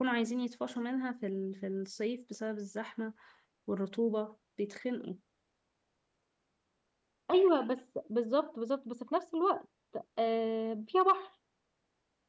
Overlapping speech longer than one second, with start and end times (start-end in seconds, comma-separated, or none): none